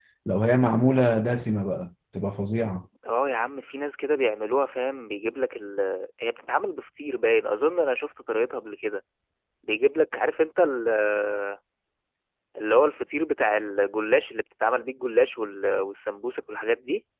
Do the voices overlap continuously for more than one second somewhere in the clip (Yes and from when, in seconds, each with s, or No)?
No